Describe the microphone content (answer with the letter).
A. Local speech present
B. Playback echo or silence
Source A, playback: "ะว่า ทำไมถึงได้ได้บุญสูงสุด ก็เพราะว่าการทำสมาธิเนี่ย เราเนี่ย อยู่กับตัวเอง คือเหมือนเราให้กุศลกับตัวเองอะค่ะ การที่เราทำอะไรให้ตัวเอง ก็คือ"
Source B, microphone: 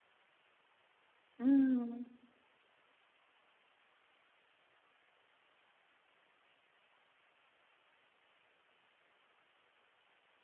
A